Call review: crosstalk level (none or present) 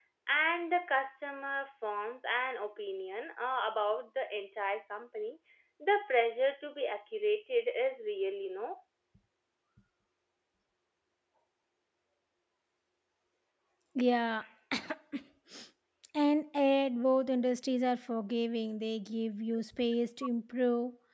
none